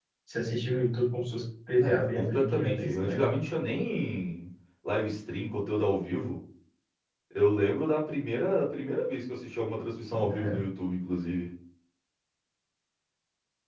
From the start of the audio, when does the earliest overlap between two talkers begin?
1.8 s

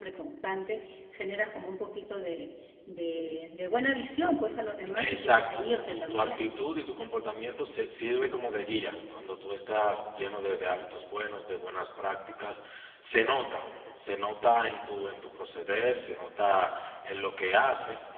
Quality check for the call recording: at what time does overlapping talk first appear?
5.0 s

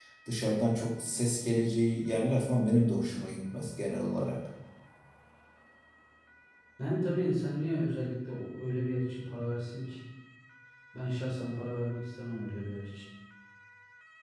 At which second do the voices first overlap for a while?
none

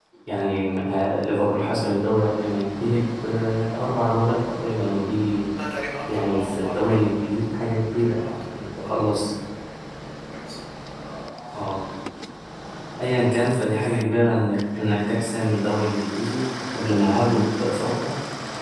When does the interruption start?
6.1 s

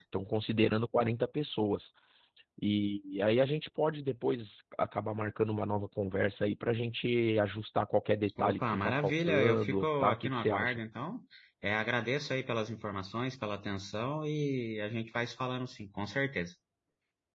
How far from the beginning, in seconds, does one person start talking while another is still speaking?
8.4 s

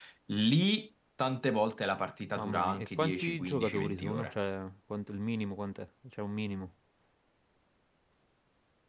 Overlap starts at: 2.4 s

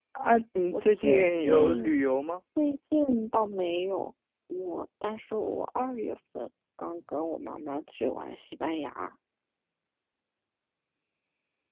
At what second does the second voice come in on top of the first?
0.7 s

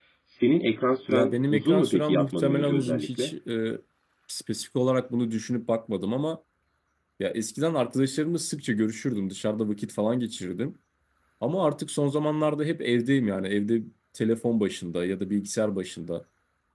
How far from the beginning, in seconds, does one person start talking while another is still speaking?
1.1 s

